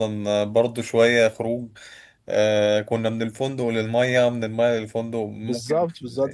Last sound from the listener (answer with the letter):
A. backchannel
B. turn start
B